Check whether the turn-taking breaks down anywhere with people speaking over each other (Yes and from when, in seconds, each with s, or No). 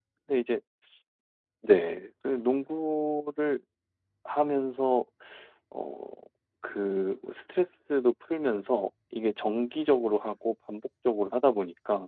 No